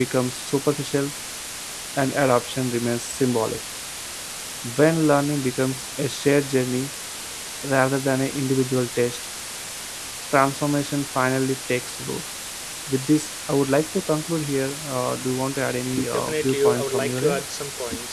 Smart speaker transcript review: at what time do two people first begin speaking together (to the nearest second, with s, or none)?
16 s